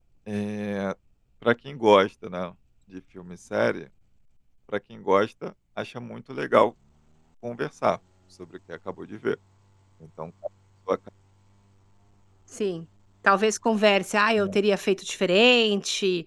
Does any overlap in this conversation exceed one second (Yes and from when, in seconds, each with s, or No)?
No